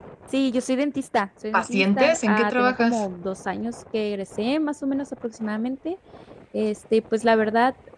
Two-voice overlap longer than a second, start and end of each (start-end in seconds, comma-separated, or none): 1.5-3.0